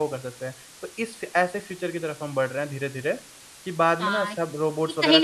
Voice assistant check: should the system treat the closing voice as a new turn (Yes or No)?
Yes